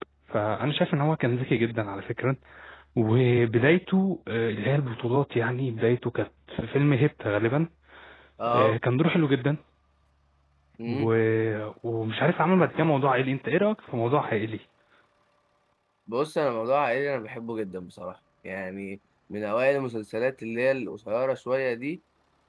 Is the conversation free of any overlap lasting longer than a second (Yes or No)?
Yes